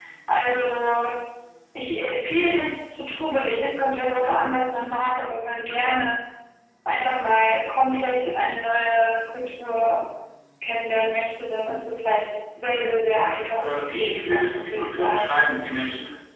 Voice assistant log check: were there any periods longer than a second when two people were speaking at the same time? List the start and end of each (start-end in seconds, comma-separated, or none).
13.5-15.4